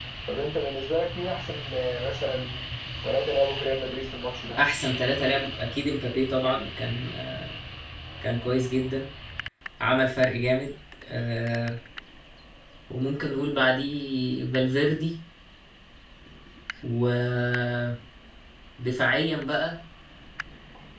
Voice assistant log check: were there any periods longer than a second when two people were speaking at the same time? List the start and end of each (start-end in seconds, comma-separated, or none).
none